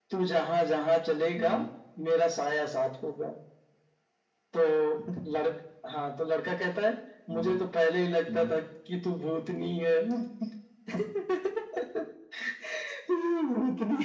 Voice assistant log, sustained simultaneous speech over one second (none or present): none